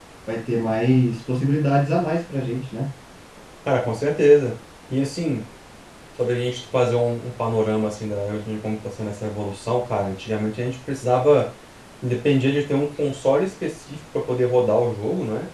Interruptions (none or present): none